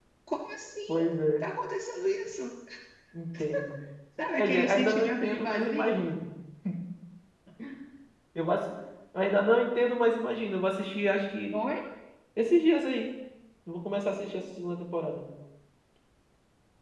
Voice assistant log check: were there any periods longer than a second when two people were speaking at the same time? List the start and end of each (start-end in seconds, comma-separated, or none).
4.4-6.1